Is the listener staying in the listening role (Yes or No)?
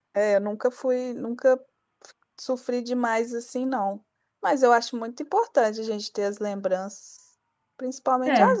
Yes